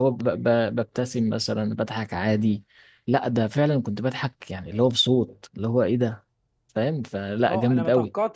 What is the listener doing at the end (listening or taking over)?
taking over